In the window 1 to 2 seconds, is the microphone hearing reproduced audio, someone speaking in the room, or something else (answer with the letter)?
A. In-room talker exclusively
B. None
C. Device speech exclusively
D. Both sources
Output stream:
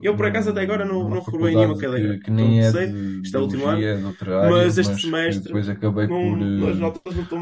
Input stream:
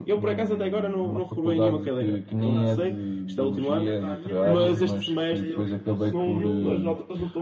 C